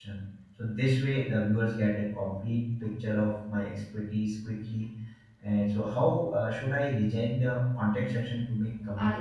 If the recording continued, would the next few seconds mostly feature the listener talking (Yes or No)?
Yes